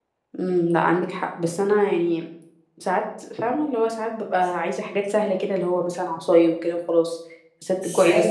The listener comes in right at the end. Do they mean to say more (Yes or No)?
Yes